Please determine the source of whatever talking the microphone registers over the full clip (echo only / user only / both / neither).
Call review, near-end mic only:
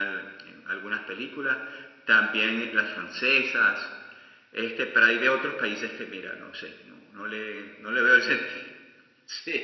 echo only